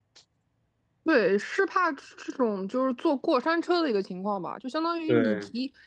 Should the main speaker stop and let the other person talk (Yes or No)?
No